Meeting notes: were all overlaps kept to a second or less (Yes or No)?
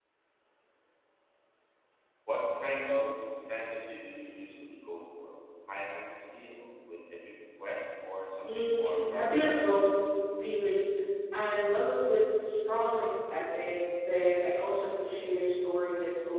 No